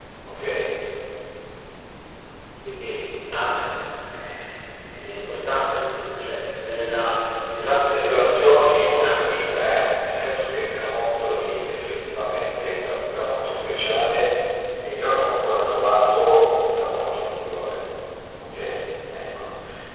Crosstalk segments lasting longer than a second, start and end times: 7.9-9.4

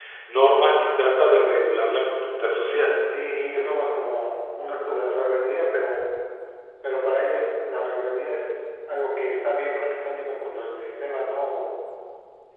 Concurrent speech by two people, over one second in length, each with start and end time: none

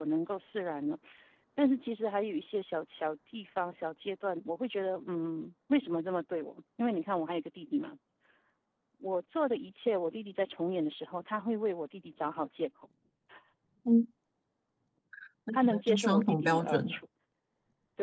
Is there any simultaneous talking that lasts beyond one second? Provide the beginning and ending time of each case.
15.6-16.8

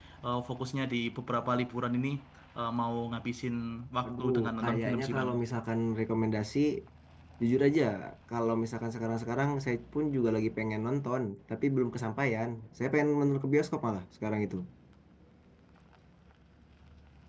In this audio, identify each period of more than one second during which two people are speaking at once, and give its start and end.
4.1-5.3

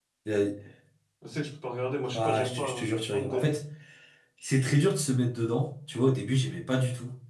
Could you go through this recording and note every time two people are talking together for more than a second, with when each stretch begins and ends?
2.1-3.5

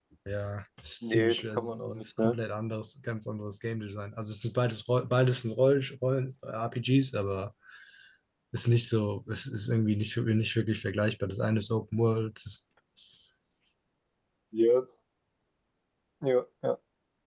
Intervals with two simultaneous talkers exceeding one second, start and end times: 1.0-2.4

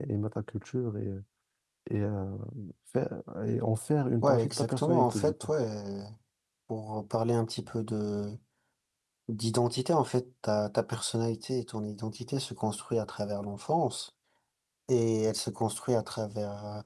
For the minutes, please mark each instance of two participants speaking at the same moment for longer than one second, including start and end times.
4.2-5.5

